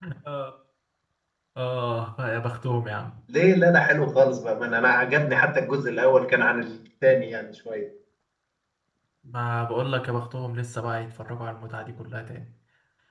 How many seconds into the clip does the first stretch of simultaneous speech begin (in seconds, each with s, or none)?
none